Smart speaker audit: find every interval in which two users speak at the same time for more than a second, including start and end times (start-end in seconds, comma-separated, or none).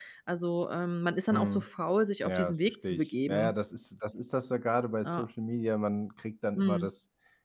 2.2-3.5